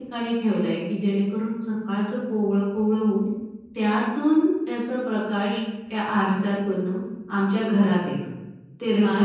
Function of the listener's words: taking over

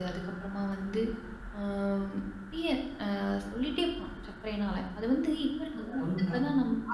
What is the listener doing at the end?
taking over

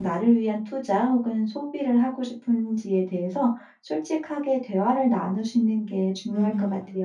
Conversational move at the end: taking over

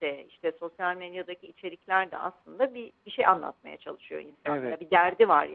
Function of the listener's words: listening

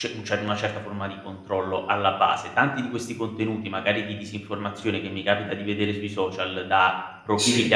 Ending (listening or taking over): listening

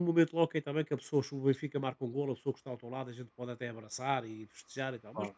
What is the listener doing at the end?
listening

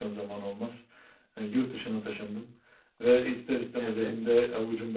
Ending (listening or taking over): listening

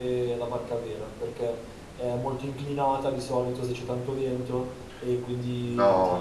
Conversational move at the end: taking over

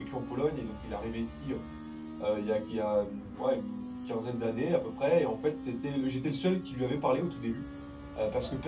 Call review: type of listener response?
listening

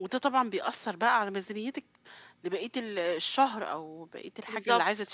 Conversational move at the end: listening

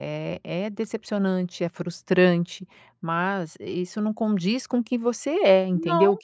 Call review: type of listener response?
listening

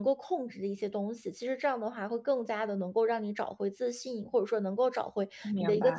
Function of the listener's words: listening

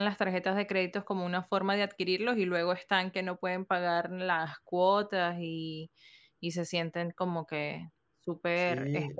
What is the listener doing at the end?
taking over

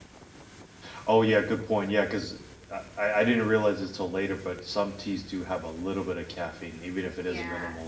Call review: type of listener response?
taking over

